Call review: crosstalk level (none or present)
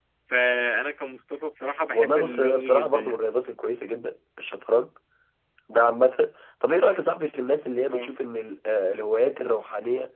present